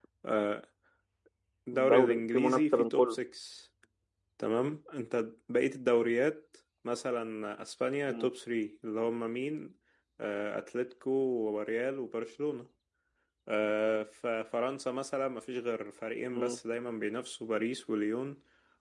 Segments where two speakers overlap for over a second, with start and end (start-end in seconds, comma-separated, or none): 1.7-3.2